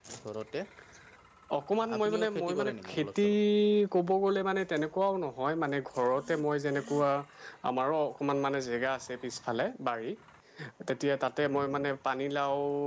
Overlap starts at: 2 s

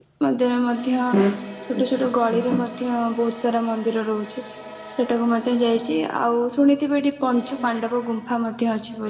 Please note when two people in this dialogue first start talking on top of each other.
none

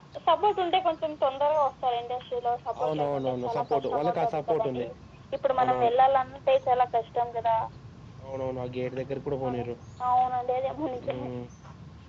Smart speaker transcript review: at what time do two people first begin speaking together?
3 s

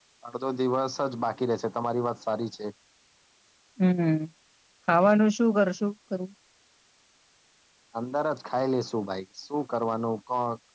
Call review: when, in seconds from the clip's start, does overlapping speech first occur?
none

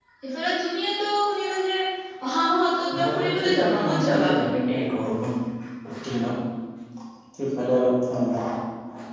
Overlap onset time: 3 s

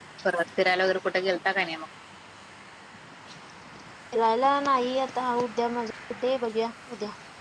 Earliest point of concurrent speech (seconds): none

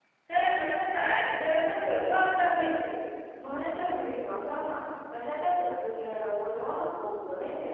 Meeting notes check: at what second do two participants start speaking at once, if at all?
none

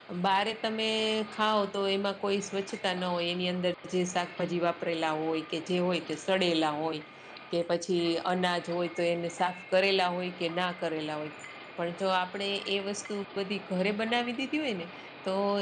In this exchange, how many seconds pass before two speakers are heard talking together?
none

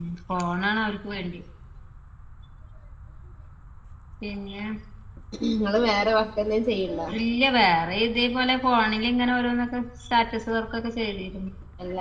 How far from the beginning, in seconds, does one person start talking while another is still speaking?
none

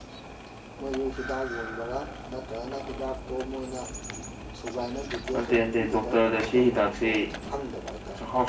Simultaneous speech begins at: 5 s

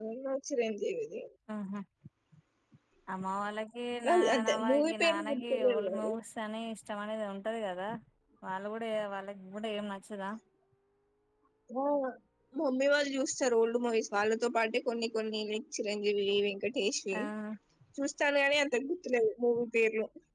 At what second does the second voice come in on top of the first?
4 s

